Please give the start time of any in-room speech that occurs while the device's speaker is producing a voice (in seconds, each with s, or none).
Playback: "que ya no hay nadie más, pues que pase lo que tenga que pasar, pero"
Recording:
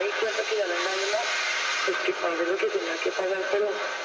none